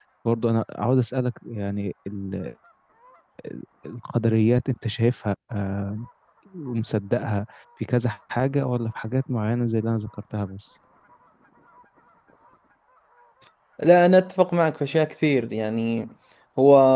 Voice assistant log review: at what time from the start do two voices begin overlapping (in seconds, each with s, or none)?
none